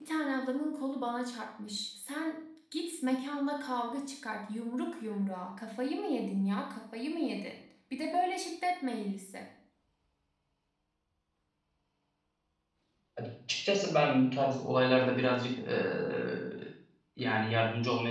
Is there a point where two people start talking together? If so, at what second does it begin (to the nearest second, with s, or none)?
none